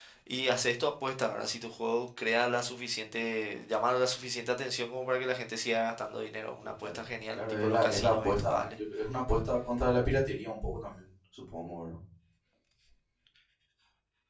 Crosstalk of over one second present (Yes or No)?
Yes